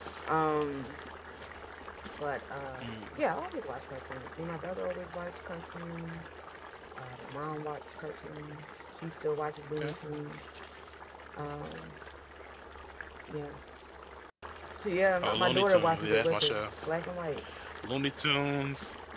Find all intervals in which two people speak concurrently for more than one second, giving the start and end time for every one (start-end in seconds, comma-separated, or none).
15.2-16.6